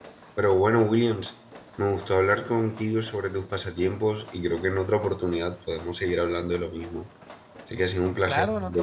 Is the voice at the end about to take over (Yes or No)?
Yes